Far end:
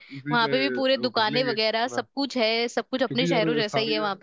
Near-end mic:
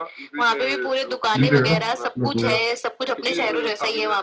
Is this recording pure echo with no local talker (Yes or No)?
No